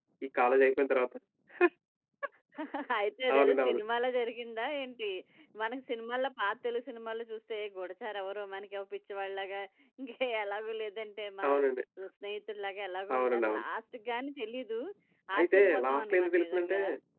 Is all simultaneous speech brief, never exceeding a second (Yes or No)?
No